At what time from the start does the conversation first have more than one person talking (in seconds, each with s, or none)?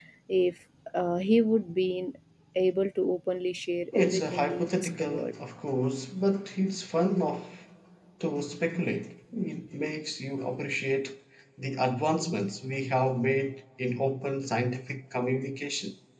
3.9 s